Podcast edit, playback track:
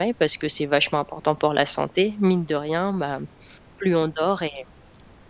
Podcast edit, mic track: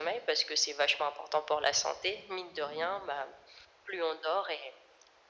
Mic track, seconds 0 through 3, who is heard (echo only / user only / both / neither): echo only